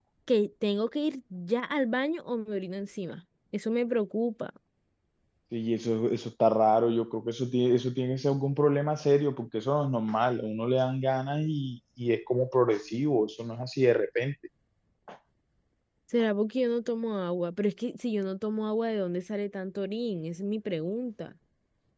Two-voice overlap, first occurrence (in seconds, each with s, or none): none